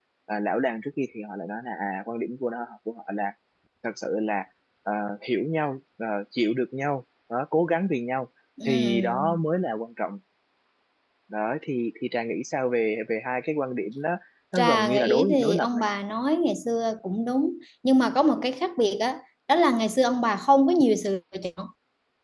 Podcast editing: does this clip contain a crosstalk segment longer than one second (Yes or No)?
Yes